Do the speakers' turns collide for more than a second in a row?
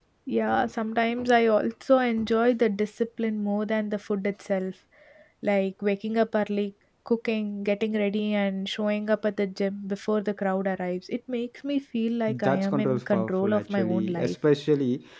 Yes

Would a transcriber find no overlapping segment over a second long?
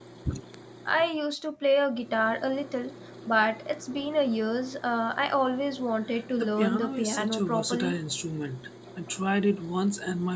No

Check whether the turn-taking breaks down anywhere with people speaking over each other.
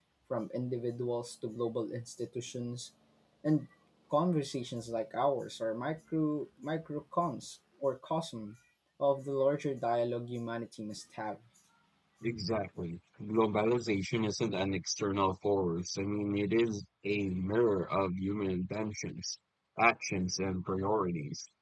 No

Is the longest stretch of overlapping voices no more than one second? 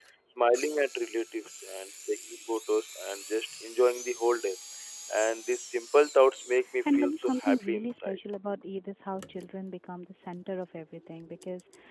No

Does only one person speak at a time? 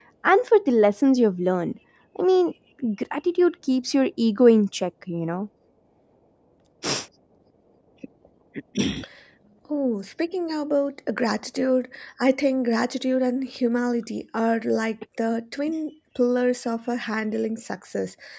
Yes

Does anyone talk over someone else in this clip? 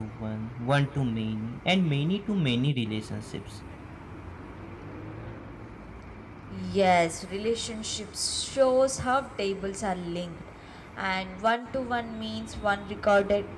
No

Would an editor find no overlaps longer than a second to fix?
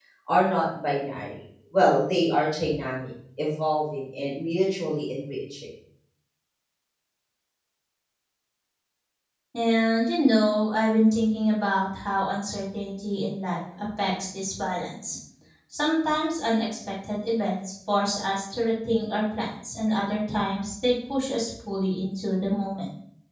Yes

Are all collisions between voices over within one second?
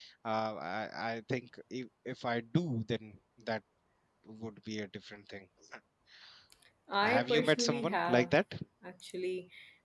No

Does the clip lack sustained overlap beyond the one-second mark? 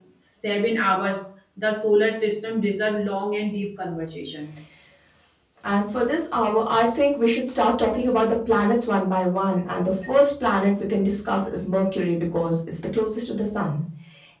Yes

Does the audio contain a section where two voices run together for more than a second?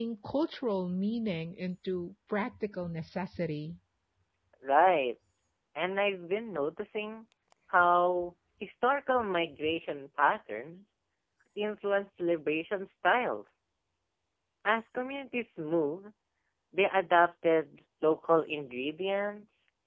No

